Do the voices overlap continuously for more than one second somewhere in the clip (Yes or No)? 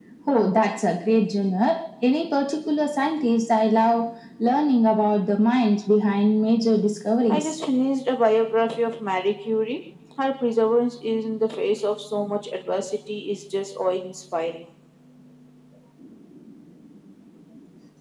No